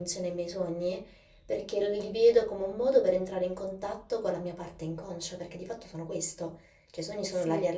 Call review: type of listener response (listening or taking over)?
listening